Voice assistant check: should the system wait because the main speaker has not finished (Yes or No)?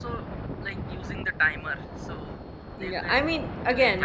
No